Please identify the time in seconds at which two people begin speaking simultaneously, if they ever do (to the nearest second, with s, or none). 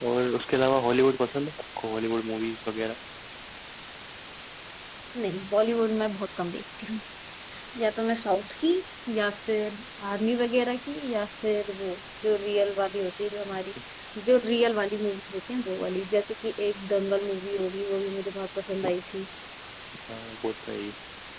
none